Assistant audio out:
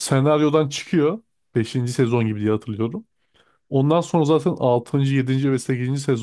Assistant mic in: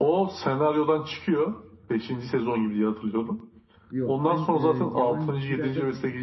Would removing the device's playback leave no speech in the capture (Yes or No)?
No